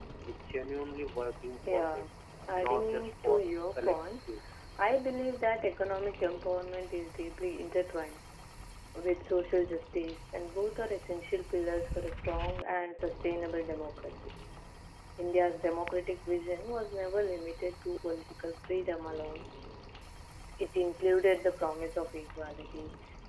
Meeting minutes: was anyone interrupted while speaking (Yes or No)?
Yes